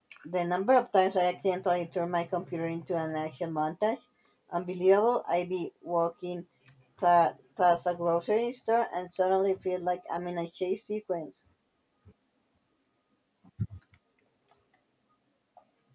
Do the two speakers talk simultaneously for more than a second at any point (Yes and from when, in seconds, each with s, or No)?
No